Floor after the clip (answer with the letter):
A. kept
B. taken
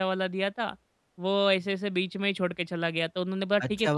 B